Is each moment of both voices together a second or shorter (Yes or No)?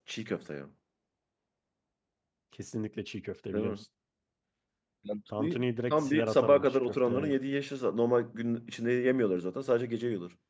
No